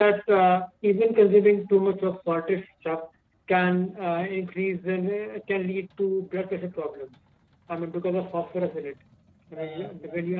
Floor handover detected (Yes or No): Yes